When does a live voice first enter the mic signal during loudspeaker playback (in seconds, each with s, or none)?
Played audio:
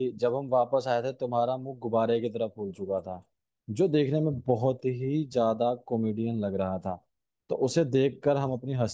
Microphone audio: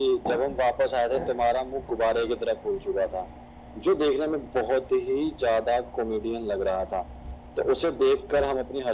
none